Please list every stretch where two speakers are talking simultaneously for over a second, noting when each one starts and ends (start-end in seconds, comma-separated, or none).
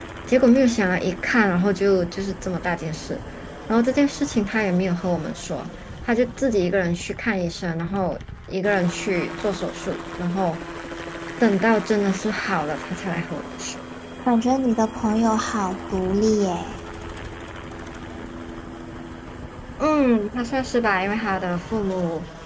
none